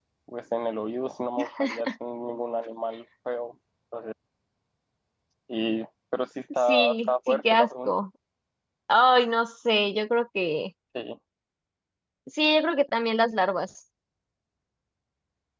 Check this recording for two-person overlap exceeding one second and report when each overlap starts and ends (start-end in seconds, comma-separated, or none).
6.7-7.9